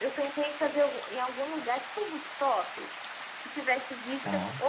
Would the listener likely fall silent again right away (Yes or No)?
Yes